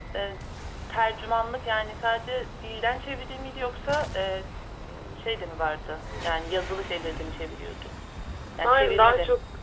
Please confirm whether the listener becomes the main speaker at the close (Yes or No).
Yes